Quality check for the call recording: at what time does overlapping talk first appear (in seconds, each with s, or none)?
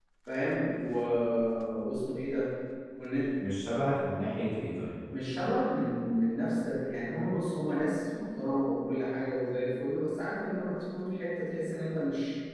none